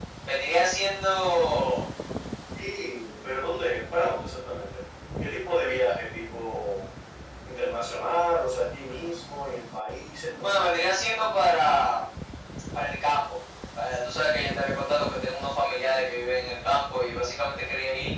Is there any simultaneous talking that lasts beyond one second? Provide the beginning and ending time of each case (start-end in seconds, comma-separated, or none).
none